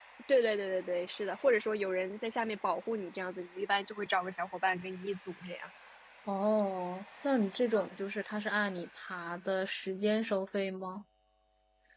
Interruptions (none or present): none